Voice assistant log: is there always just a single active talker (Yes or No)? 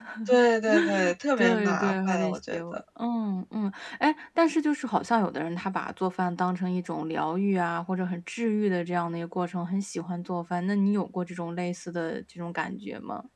No